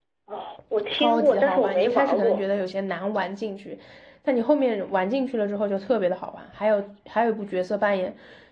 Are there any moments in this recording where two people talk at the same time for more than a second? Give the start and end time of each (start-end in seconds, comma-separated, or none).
0.9-2.4